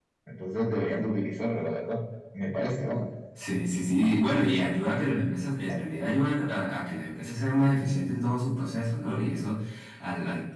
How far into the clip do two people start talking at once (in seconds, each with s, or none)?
none